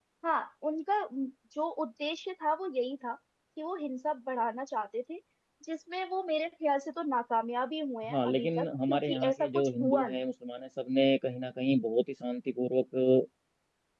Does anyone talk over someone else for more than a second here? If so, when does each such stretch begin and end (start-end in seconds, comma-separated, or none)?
8.1-10.2